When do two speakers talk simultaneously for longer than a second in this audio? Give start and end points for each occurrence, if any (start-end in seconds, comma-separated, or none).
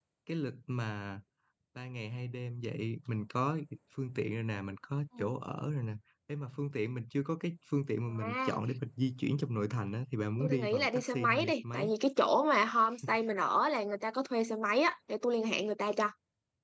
10.4-11.9